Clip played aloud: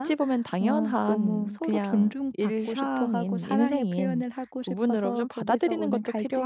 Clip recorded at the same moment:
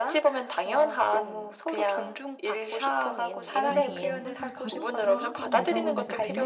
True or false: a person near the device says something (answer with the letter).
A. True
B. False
A